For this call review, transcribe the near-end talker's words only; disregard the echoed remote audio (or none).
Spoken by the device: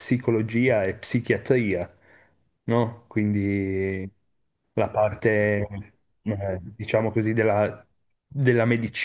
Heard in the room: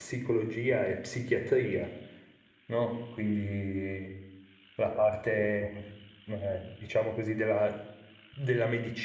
none